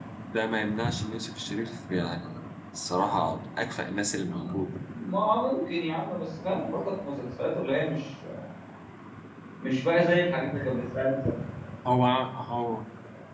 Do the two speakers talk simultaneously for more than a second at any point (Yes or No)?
No